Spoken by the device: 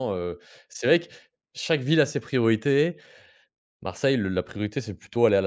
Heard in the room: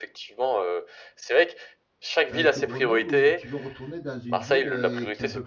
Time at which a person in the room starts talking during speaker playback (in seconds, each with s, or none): 2.3 s